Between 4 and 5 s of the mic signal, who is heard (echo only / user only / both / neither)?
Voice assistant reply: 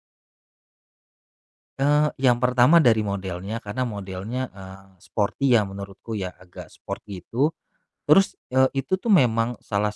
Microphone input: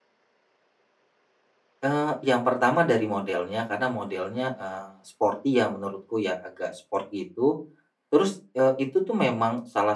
echo only